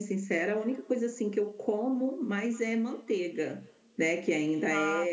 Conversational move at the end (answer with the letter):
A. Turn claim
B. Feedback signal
B